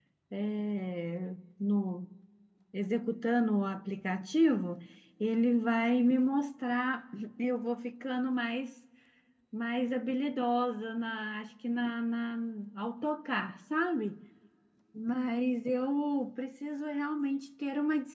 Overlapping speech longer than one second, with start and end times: none

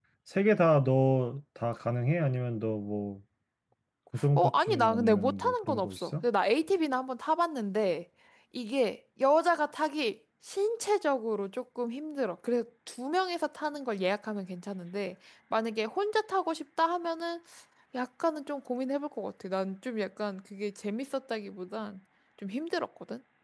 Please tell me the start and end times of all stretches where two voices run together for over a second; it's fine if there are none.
4.4-6.2

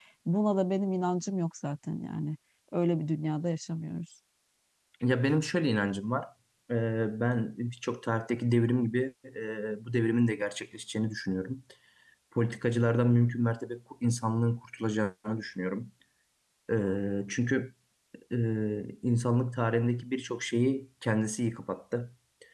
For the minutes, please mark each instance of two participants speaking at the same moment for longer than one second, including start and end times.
none

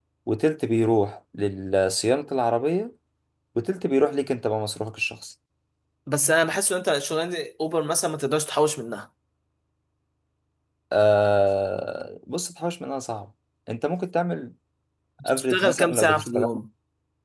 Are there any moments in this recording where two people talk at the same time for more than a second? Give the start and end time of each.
15.2-16.5

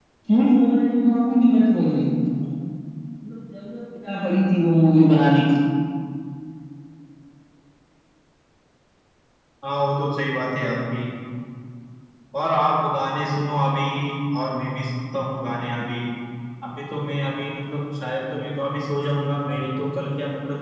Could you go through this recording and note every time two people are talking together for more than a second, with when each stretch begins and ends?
none

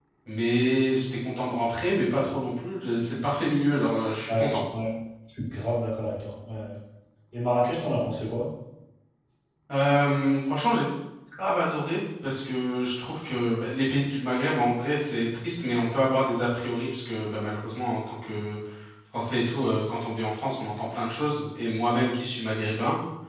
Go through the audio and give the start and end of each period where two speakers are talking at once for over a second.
none

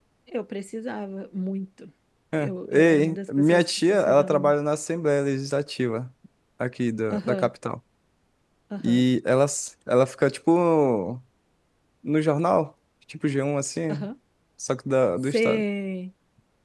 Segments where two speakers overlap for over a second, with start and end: 2.4-4.5

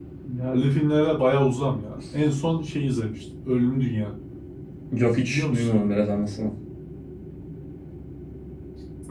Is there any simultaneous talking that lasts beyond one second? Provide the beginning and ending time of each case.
none

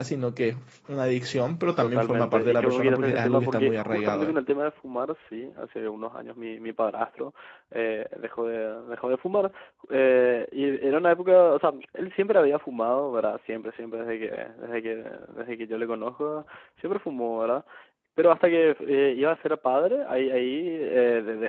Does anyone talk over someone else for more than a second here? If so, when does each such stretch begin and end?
1.8-4.3

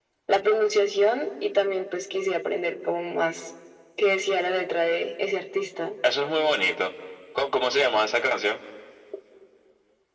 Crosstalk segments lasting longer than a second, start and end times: none

